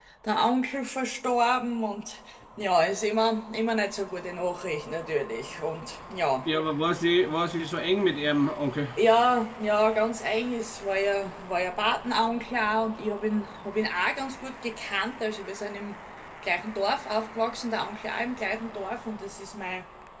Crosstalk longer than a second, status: none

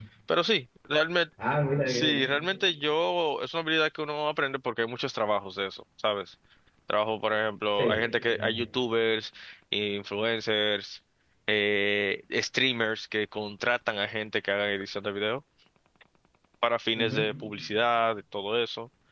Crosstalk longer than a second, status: none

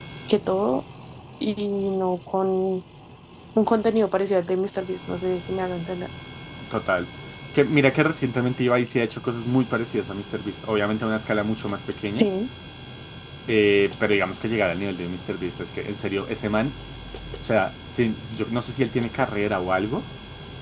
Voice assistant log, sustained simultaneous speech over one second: none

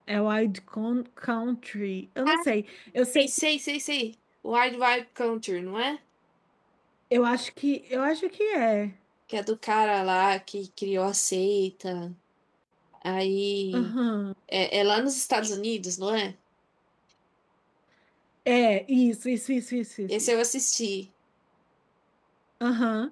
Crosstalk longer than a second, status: none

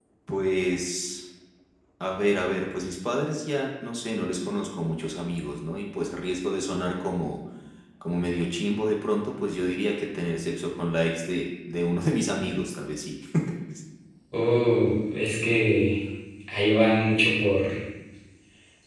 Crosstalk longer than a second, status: none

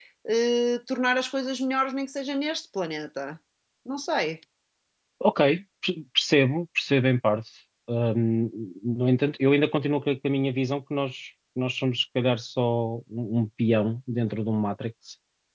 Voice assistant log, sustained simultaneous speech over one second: none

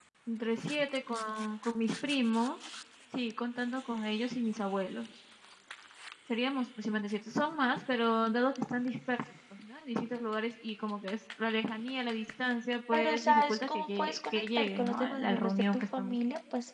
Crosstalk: present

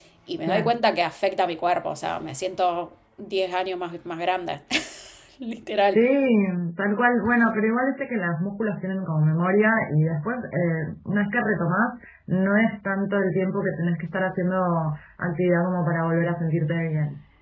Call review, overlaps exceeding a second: none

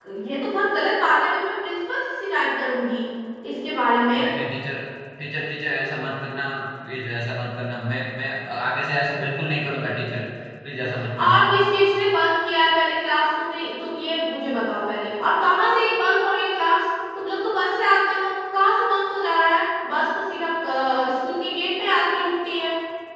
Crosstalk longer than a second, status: none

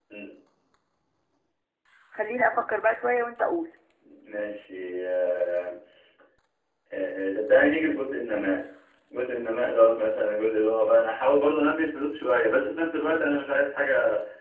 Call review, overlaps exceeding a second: none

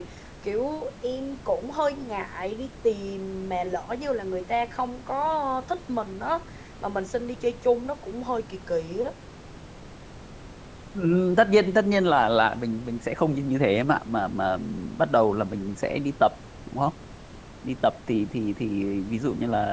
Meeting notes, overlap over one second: none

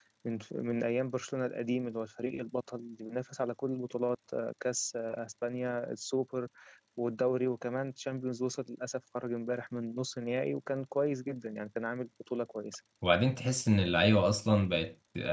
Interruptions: none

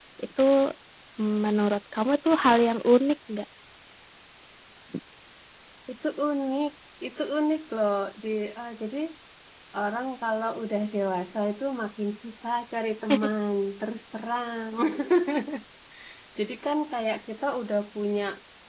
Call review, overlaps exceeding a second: none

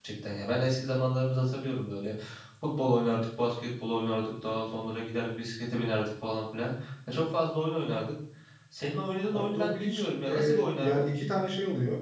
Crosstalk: present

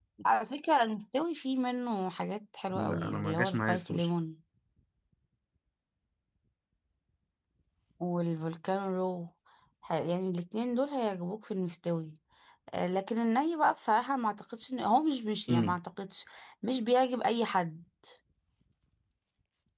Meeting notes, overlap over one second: present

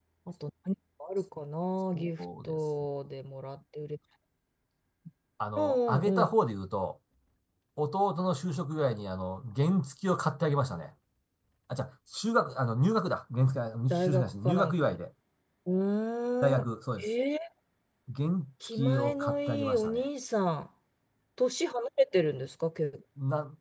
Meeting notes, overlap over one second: present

